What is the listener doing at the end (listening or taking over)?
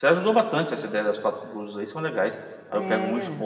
listening